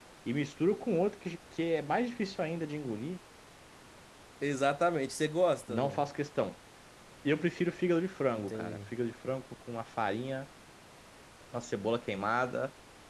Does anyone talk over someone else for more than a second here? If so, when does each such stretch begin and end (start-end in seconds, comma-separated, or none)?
none